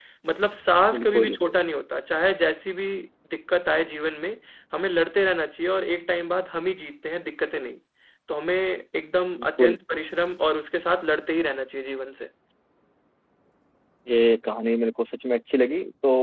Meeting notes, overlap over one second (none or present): none